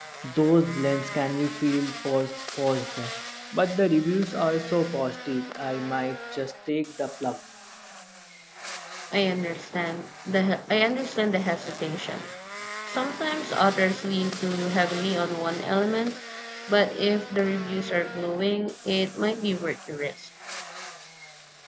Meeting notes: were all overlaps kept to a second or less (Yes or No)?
Yes